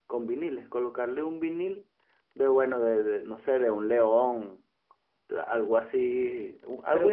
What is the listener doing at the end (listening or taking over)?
taking over